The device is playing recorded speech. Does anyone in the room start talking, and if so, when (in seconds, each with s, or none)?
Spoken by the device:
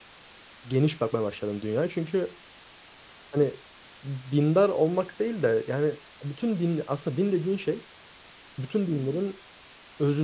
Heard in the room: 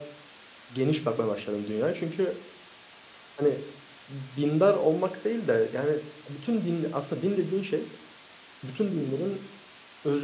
none